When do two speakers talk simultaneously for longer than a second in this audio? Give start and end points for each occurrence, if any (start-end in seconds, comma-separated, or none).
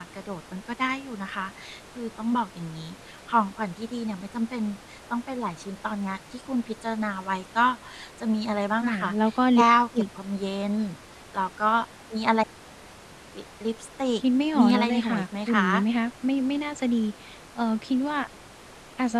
14.6-15.8